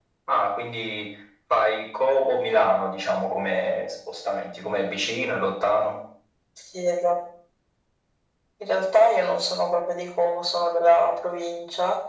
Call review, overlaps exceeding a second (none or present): none